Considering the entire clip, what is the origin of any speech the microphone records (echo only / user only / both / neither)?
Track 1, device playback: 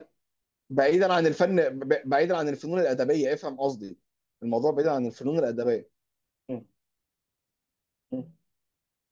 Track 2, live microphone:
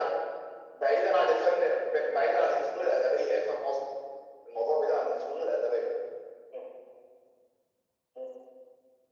echo only